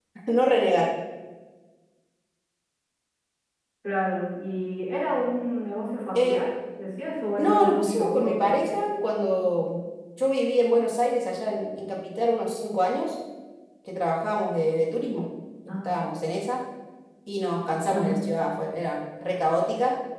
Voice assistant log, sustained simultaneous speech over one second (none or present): present